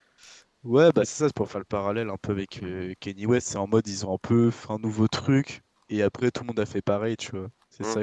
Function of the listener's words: taking over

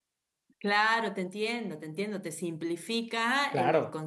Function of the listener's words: listening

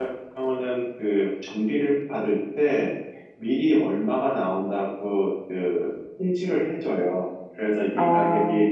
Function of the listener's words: listening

